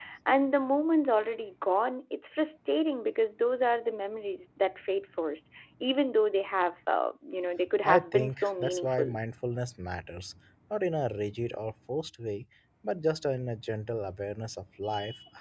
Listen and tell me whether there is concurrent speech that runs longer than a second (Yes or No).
Yes